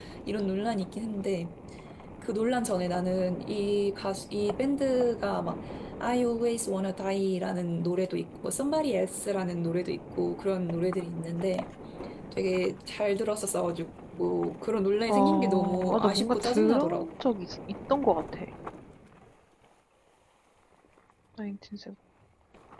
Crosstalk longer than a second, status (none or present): present